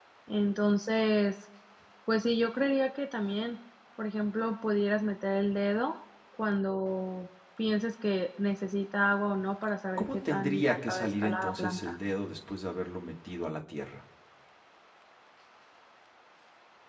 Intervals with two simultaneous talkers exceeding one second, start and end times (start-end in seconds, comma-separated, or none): 10.0-12.0